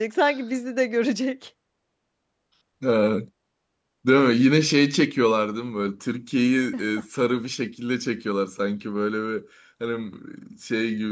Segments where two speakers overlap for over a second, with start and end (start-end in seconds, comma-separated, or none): none